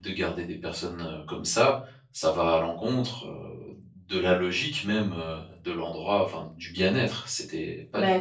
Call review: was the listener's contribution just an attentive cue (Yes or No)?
No